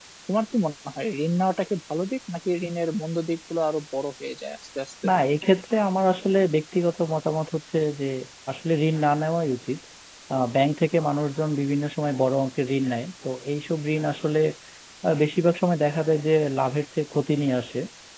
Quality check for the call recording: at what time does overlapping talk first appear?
none

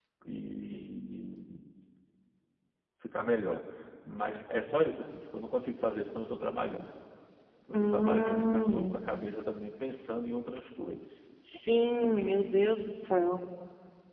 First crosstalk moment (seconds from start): 7.7 s

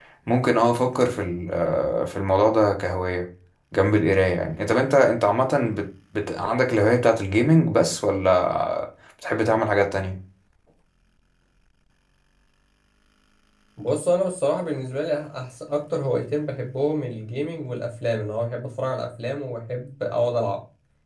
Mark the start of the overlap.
none

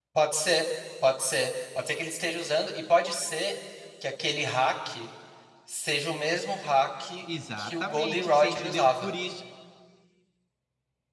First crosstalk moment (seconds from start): 7.6 s

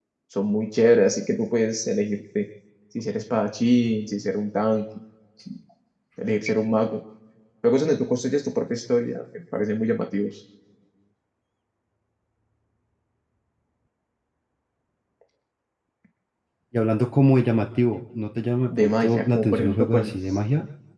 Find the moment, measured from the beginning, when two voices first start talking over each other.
18.7 s

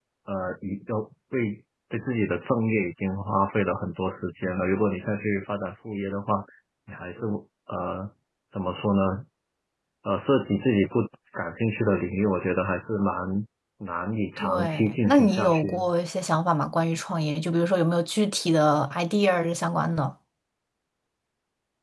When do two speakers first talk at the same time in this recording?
14.4 s

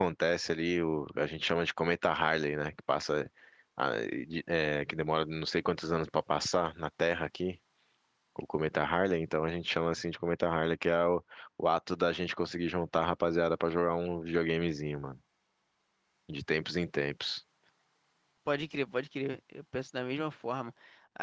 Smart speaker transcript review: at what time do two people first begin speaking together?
none

